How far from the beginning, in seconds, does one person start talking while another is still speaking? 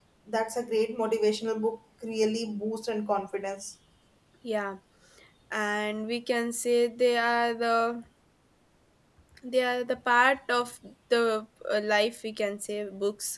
none

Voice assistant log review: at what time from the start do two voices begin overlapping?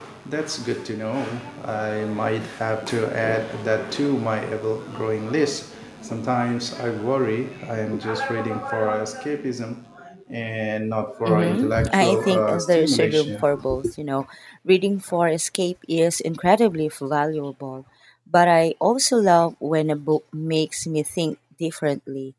11.2 s

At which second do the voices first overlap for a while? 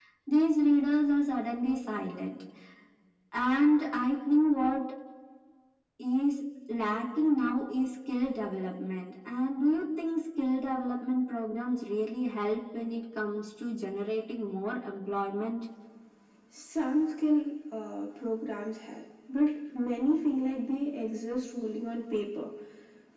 none

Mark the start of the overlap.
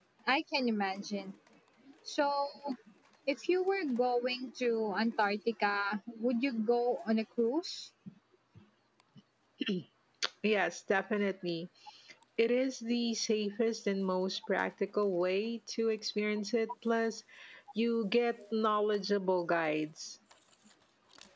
none

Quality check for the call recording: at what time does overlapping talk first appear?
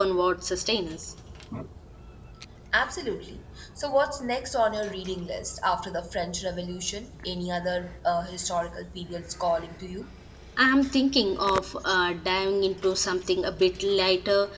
none

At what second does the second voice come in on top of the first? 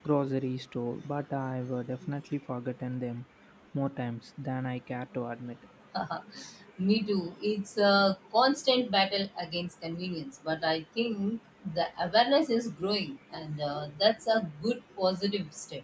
none

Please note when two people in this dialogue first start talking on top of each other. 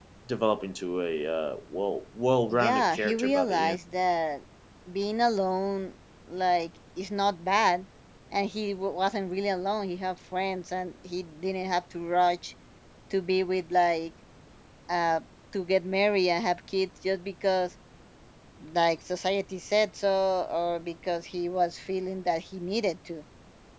2.5 s

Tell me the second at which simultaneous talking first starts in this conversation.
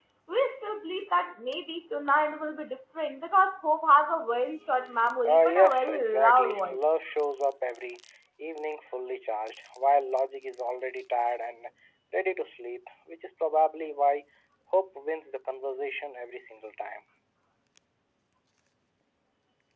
5.2 s

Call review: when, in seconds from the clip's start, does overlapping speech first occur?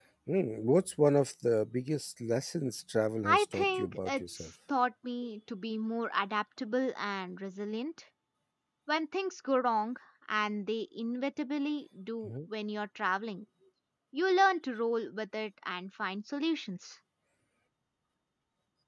3.2 s

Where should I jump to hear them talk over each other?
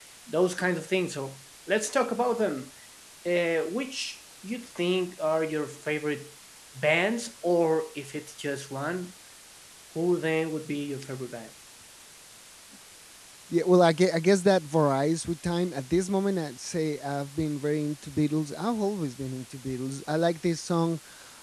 none

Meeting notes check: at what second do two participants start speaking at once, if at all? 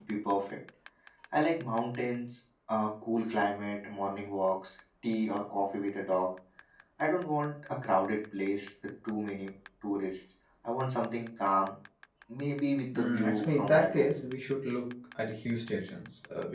12.9 s

